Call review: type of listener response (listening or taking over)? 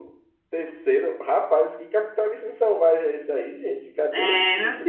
taking over